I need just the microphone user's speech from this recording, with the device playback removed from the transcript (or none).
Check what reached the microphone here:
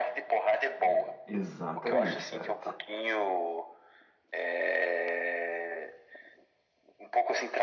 é, exatamente, cara.